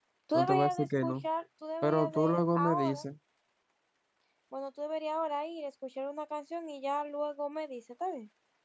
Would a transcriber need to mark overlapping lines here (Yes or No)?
Yes